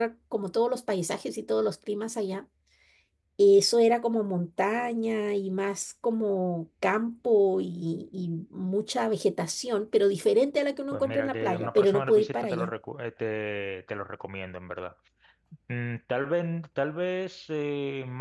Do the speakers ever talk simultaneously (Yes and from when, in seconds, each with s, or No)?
Yes, from 10.9 s